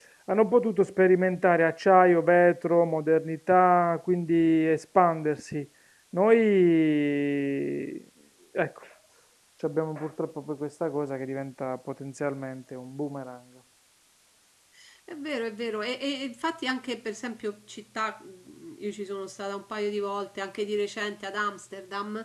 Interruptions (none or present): none